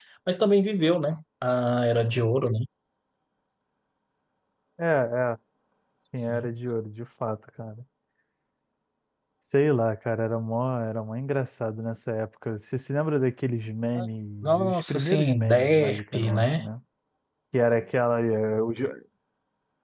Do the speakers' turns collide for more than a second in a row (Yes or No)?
Yes